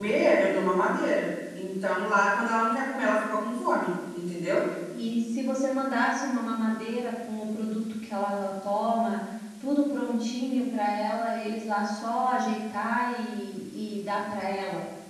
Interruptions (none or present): none